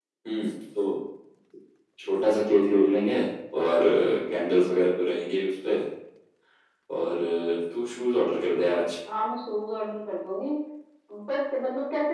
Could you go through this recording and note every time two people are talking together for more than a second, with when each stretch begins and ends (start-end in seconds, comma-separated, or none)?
none